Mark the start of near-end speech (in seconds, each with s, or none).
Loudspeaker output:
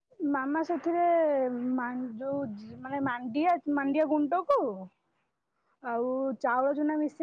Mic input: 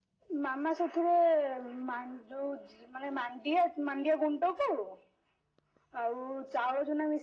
none